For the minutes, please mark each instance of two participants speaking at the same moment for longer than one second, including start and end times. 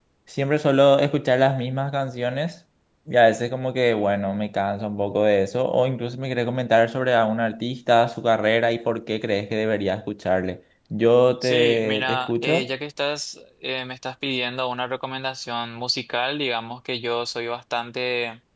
11.4-12.7

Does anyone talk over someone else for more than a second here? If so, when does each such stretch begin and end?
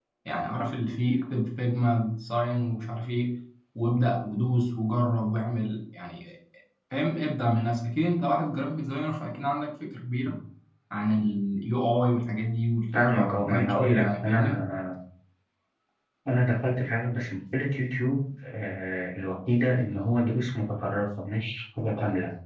12.9-14.7

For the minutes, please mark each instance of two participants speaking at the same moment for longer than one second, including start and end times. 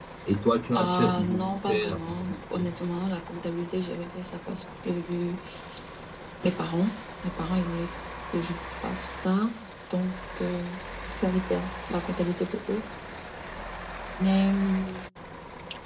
0.8-2.7

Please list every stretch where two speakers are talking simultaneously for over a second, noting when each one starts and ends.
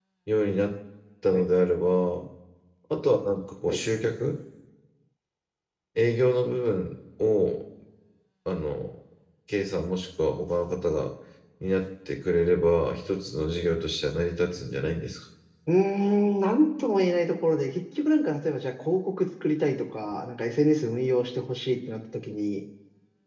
none

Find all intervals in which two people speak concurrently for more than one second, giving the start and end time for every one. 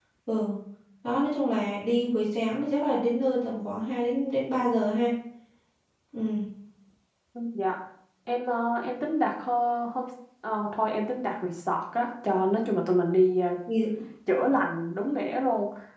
none

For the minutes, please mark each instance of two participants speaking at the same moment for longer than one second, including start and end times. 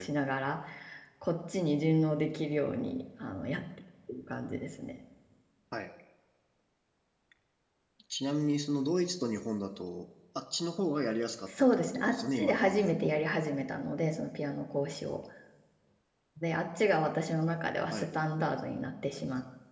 11.5-13.1

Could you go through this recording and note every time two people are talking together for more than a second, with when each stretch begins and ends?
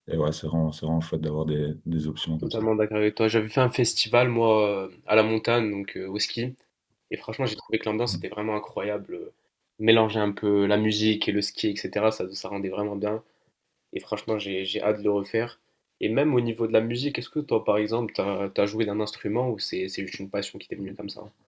none

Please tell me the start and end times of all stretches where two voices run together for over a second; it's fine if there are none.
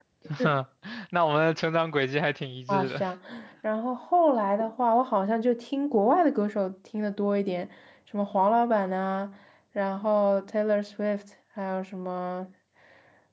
none

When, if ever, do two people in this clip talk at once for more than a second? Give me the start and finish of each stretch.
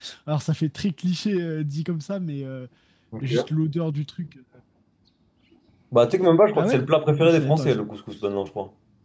none

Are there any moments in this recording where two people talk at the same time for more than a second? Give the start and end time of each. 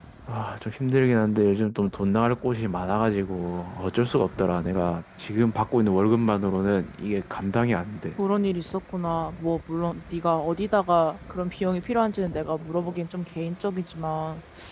none

